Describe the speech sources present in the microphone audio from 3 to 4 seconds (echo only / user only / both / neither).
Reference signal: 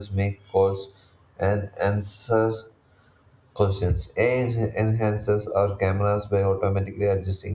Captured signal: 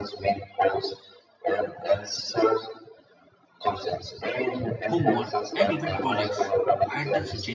echo only